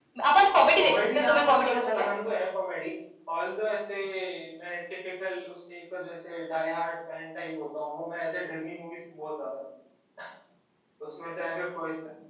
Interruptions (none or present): present